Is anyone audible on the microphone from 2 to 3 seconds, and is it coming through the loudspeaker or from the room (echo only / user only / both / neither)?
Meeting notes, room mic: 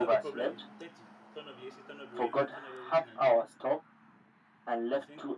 both